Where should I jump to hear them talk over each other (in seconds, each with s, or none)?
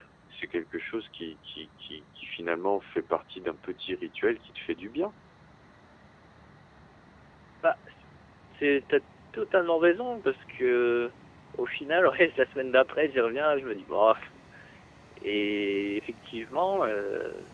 none